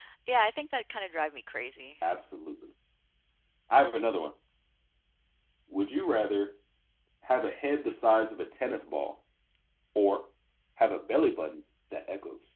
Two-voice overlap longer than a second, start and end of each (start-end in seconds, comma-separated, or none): none